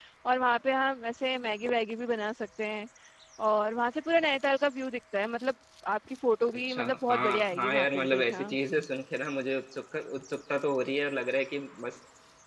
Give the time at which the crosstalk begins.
6.7 s

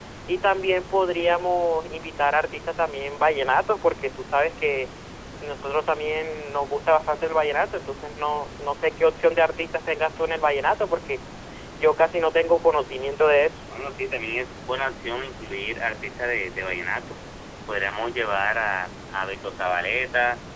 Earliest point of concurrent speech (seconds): none

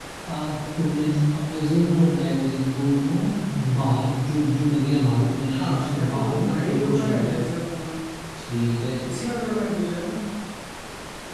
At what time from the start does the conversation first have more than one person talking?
5.5 s

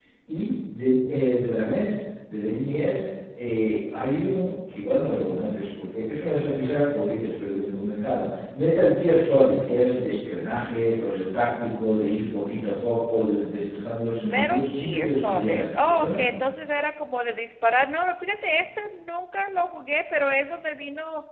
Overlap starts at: 14.3 s

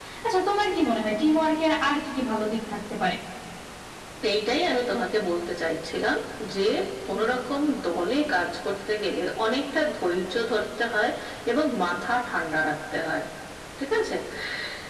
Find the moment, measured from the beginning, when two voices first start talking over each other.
none

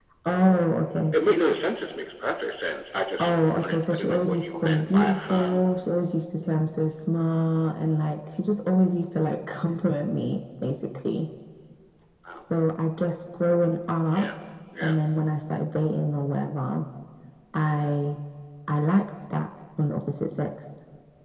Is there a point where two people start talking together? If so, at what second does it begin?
3.2 s

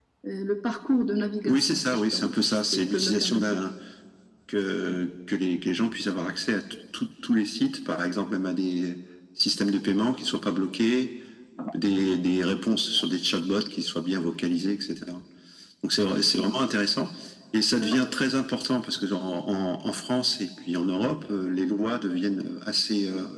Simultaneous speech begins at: 1.5 s

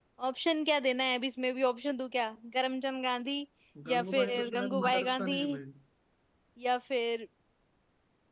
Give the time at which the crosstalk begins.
3.9 s

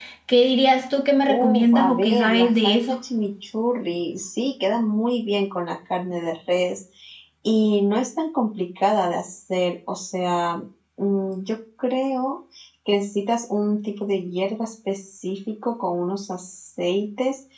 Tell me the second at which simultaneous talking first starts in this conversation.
1.3 s

